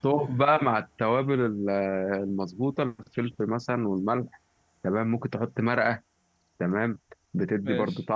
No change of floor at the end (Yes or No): Yes